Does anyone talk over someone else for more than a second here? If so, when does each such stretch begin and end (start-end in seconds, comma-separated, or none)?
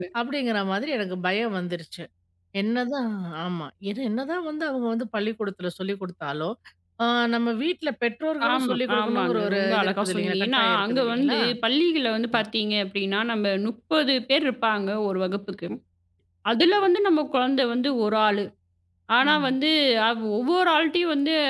8.5-11.4